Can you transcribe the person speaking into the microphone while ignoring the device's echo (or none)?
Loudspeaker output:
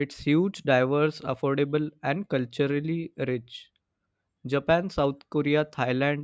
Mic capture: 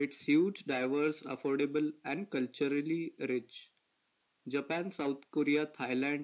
none